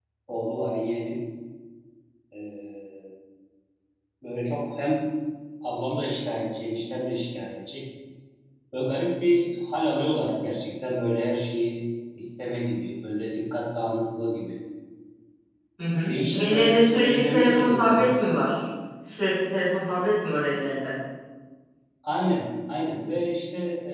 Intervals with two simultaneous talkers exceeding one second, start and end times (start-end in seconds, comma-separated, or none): 16.1-18.1